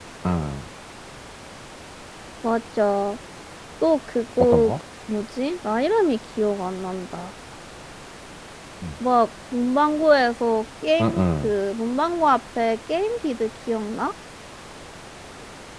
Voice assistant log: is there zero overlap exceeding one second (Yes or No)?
Yes